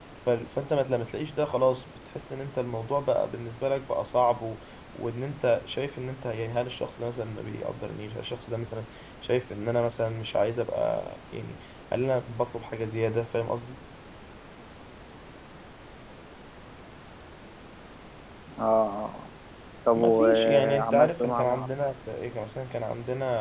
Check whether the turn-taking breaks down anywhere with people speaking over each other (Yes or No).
Yes